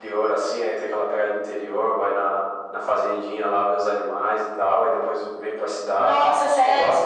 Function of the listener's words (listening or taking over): taking over